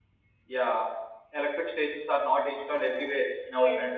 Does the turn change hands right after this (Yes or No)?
No